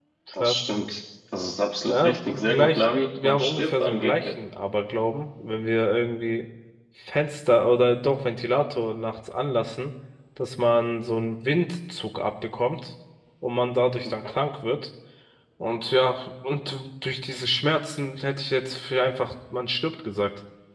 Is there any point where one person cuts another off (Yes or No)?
Yes